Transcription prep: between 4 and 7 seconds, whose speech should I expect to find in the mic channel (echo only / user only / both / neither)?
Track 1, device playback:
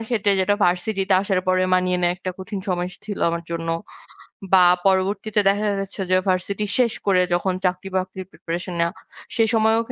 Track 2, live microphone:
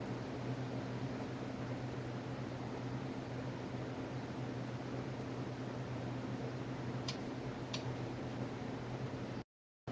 neither